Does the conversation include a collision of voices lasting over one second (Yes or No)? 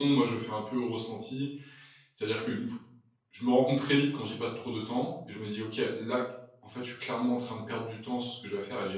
No